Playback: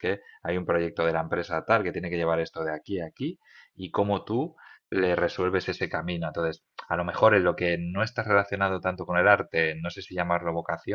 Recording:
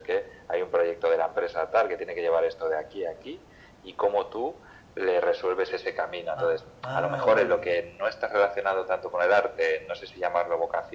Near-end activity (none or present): present